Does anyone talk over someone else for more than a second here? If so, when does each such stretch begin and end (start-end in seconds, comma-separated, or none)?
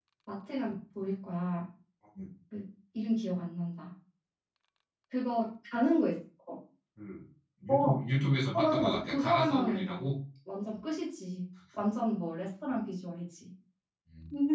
8.5-10.1